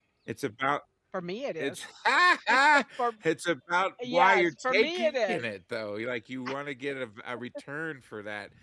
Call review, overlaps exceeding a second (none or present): present